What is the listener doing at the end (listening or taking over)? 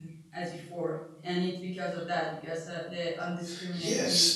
taking over